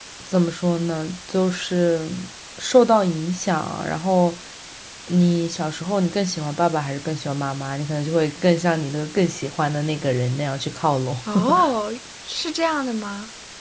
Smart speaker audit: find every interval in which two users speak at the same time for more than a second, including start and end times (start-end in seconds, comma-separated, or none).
none